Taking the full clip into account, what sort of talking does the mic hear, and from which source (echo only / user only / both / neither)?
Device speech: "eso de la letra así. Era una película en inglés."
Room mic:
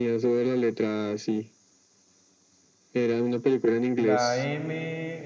both